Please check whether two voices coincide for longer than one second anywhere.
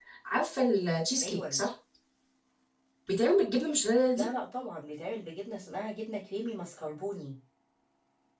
No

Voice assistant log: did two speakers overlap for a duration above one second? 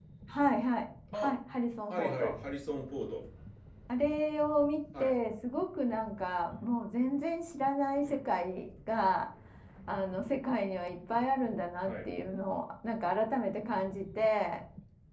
No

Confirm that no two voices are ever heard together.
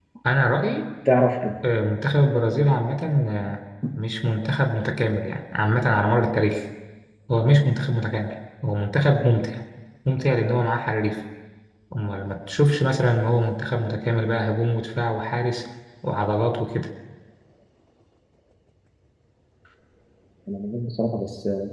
Yes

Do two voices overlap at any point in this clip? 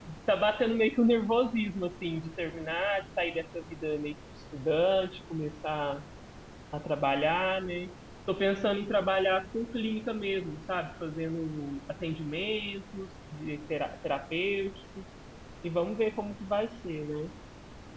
No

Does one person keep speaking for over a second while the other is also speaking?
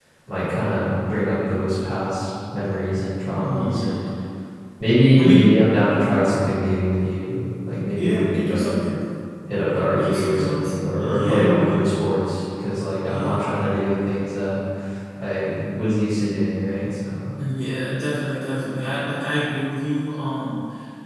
Yes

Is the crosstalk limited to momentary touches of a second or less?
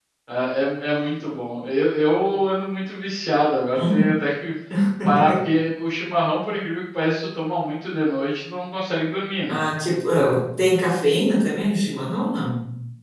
Yes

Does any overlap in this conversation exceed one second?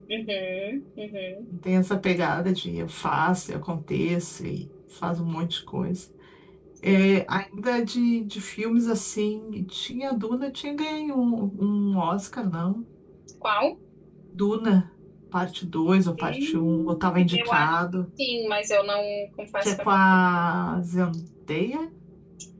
Yes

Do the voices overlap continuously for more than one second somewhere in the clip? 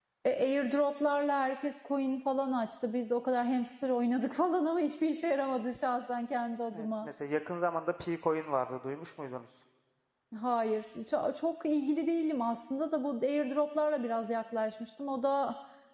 No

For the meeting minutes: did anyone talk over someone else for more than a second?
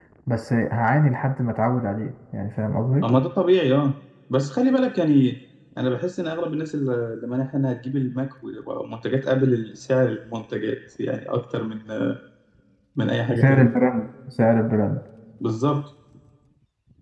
No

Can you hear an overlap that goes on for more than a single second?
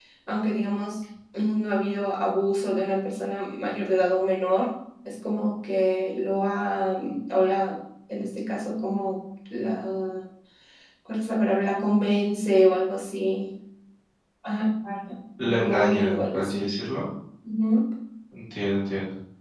Yes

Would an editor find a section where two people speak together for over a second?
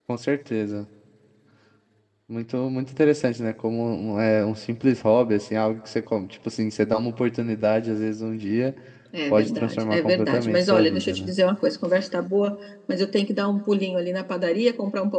Yes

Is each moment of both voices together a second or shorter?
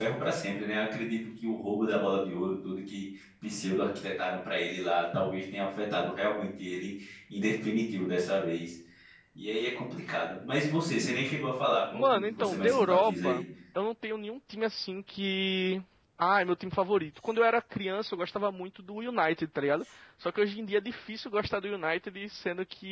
No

